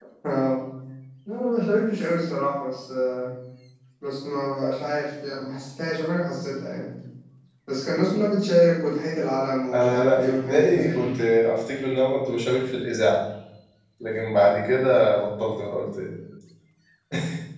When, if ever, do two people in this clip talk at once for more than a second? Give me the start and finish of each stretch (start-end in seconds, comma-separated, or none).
9.7-11.2